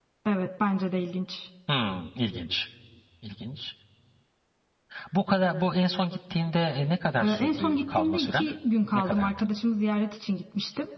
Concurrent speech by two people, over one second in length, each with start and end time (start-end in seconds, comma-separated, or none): 7.2-8.5